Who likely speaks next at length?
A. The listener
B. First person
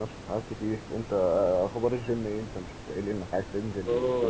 A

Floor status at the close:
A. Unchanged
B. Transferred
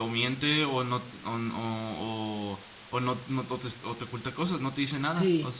B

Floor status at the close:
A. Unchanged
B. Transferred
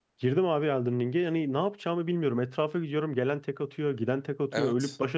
A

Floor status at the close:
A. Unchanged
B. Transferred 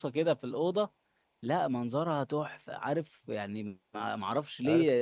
B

